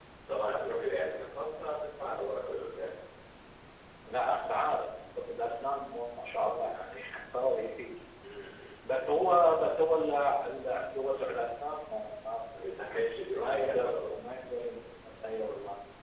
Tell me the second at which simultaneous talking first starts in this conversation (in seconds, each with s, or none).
12.8 s